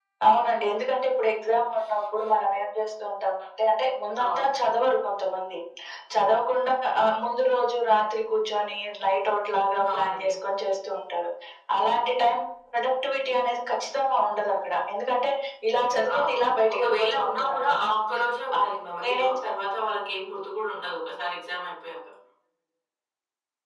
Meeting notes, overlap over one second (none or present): present